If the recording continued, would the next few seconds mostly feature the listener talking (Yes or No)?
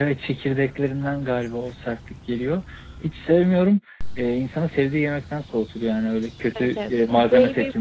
Yes